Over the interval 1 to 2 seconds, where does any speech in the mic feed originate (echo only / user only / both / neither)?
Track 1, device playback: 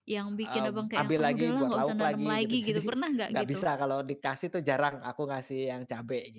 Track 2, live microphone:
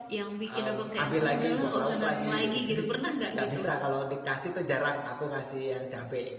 both